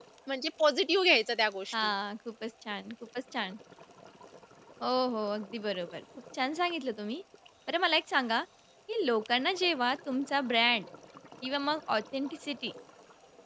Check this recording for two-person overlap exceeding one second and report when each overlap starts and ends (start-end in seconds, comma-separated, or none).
none